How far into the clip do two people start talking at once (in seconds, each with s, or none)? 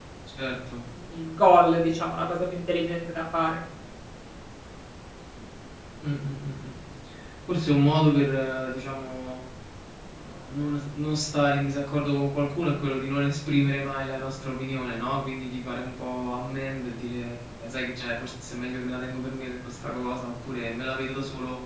none